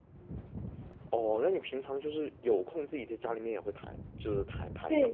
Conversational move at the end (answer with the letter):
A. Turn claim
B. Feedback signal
A